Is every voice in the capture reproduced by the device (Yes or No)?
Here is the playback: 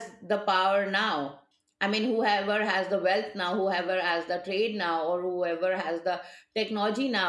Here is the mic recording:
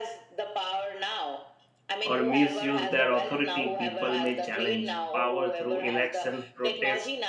No